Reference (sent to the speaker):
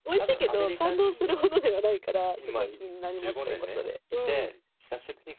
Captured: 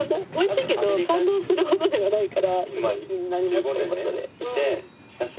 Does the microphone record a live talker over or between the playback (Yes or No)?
No